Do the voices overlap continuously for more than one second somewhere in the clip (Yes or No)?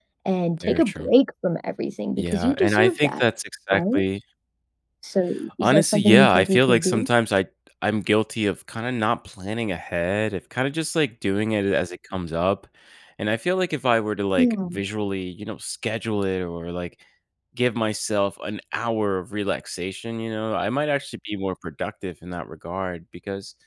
Yes